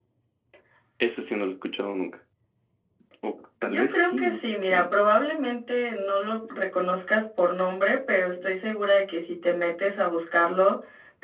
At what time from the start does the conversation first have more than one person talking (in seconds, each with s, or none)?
3.7 s